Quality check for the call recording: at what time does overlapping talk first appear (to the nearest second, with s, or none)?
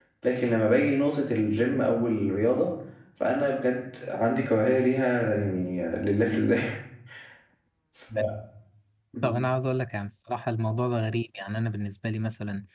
none